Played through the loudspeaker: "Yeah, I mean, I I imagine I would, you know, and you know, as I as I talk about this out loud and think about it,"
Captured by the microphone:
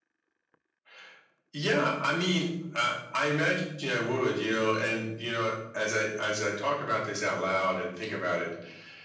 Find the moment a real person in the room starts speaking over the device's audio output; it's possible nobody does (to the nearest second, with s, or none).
none